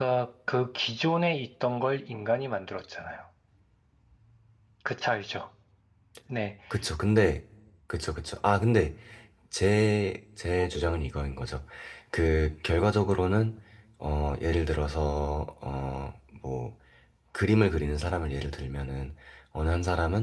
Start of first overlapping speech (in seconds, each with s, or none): none